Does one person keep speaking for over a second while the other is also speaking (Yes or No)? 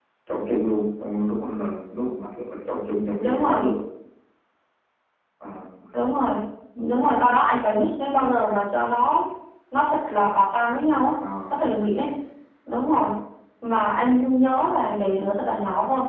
No